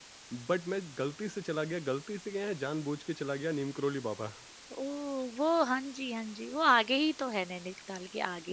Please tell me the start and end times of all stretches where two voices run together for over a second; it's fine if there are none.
none

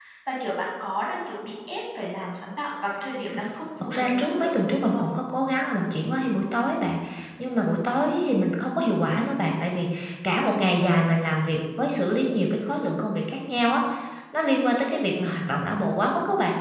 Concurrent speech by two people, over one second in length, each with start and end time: 3.8-5.1

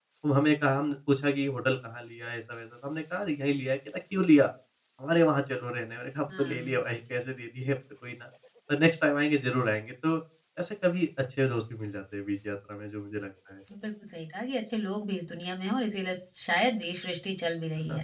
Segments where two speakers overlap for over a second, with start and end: none

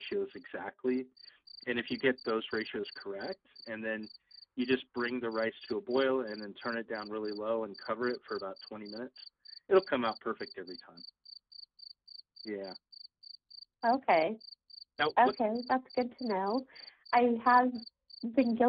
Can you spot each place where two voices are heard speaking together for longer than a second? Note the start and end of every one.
none

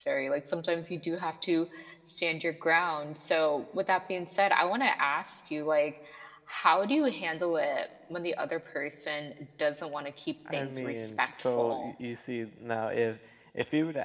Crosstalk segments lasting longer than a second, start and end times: 10.5-11.9

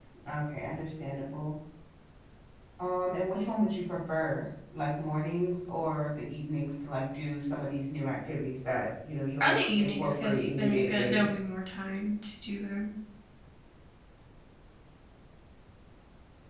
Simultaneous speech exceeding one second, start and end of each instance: 9.4-11.2

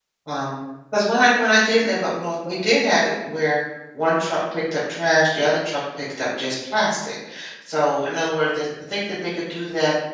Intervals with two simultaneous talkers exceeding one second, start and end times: none

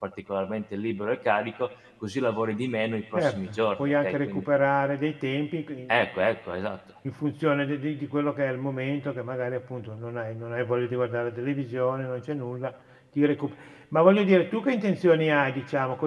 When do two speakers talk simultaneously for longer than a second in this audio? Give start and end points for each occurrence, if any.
3.1-4.4

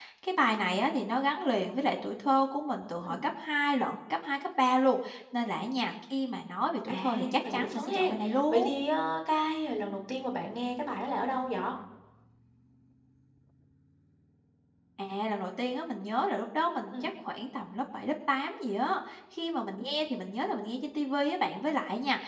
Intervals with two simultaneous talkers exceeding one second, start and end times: 6.9-8.1

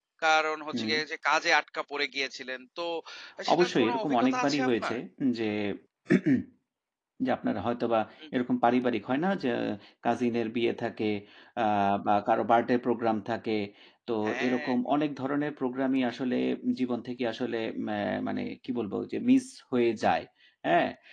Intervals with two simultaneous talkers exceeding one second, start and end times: 3.5-5.0

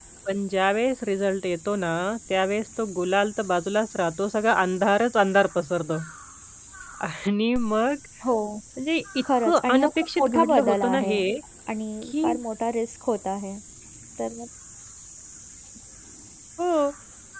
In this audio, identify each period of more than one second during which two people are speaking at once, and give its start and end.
9.4-11.2

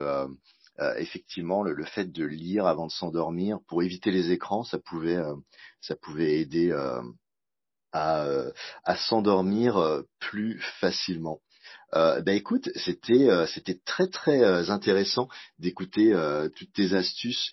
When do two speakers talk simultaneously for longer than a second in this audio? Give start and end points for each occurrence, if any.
none

